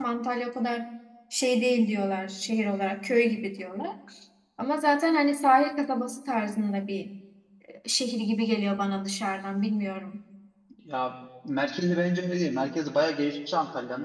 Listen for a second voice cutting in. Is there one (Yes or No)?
No